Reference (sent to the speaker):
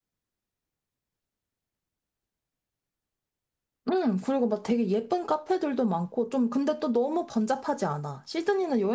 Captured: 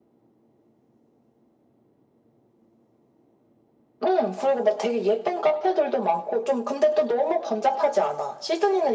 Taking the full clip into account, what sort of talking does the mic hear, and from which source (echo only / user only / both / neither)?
echo only